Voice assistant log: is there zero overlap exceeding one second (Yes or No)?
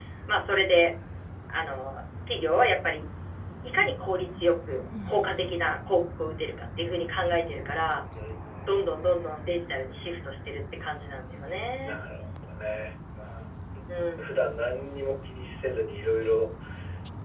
Yes